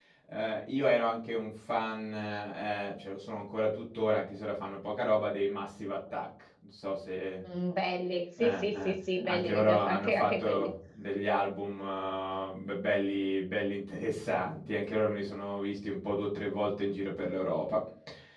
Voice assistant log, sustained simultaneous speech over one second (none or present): present